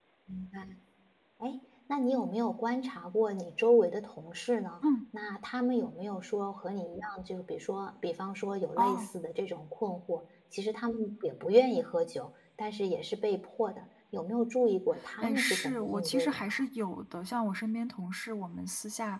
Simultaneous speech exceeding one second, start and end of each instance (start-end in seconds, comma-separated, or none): 15.2-16.5